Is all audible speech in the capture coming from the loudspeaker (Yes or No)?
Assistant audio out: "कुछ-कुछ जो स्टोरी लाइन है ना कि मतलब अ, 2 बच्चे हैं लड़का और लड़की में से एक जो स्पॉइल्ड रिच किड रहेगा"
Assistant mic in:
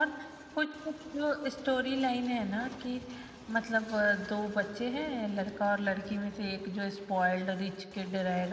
Yes